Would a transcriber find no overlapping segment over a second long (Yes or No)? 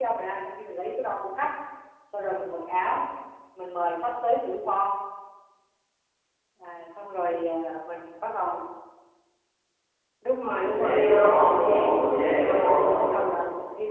No